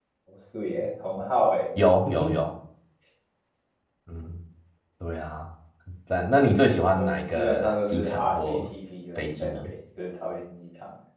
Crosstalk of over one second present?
Yes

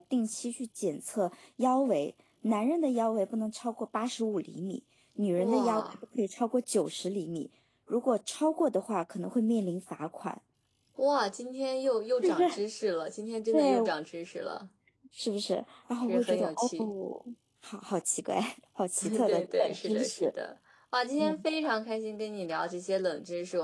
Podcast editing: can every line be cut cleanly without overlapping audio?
No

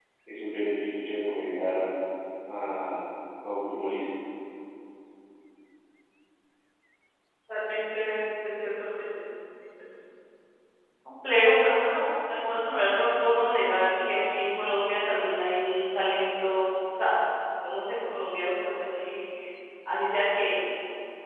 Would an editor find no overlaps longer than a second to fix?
Yes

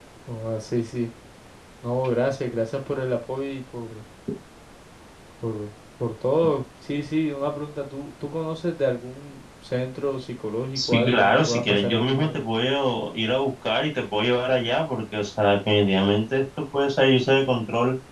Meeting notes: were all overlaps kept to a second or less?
No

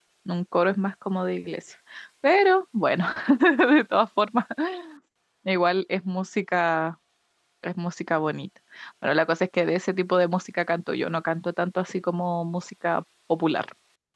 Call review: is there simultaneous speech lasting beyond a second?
No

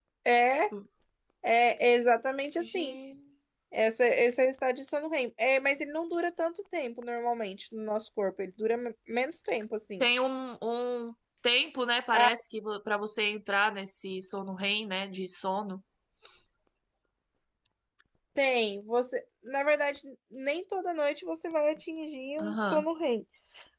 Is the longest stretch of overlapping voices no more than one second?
Yes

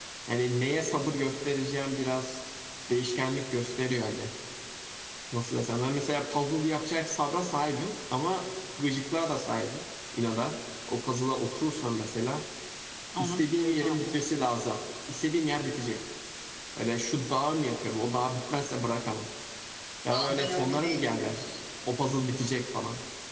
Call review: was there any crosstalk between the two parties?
Yes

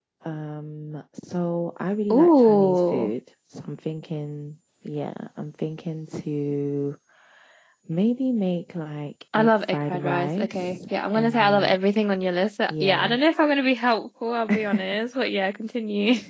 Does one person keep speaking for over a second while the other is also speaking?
Yes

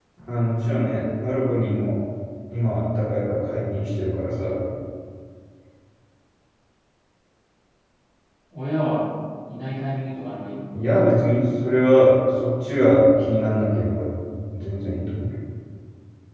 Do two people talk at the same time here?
No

